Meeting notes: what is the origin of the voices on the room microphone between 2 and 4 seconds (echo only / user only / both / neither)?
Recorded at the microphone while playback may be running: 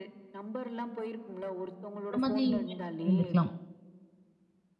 both